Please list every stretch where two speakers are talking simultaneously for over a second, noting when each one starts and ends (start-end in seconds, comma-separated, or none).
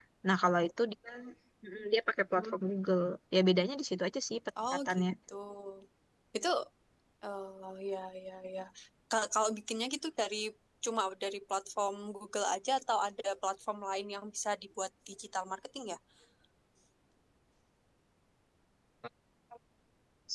none